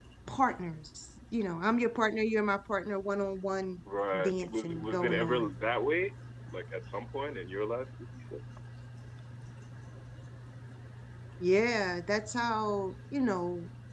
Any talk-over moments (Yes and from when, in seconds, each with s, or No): Yes, from 4.2 s